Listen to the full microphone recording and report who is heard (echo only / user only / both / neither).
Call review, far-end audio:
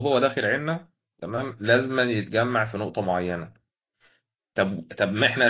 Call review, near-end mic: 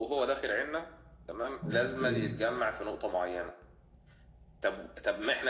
both